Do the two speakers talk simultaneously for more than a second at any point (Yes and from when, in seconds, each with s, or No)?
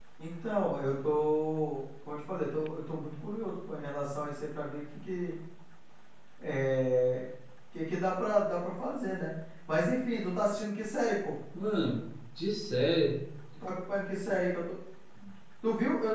No